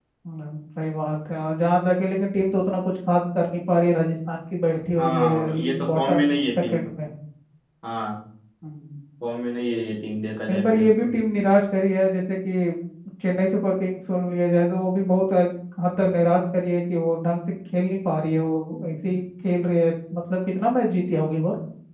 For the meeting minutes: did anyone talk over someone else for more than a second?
Yes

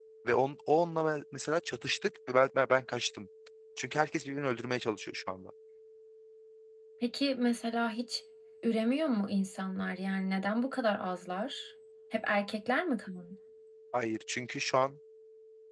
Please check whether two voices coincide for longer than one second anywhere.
No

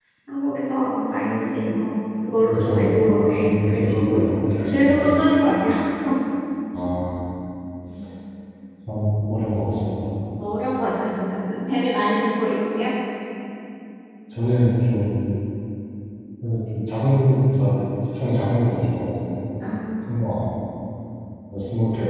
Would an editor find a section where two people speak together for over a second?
Yes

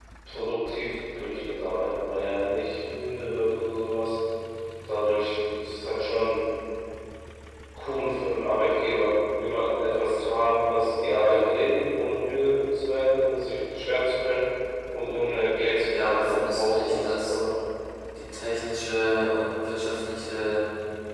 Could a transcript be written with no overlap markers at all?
No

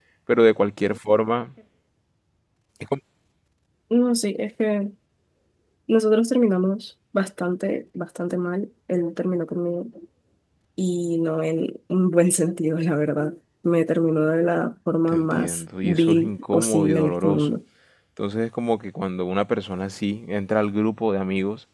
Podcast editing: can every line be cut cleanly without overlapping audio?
No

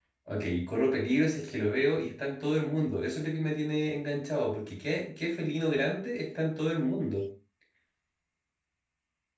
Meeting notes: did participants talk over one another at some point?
No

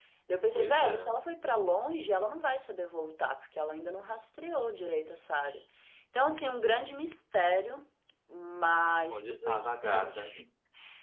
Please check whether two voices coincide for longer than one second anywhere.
Yes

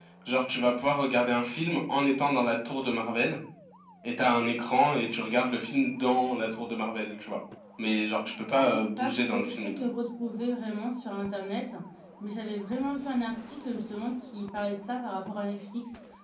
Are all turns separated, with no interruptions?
No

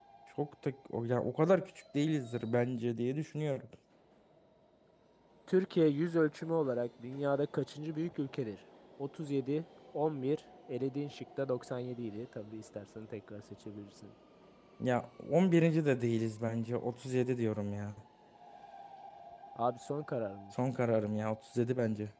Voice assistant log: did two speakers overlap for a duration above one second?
No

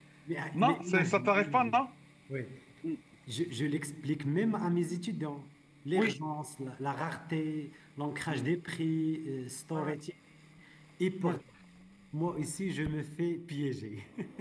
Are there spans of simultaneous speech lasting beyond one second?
Yes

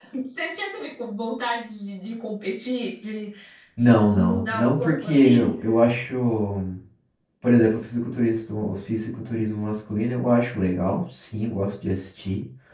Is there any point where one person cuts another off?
Yes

